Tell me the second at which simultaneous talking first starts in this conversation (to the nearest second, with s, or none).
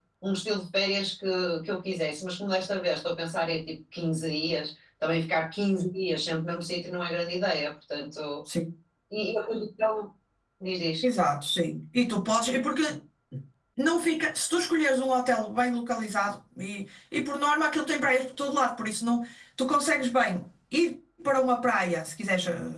none